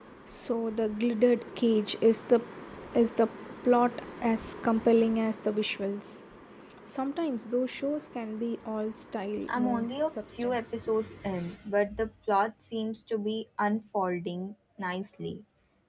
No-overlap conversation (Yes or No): No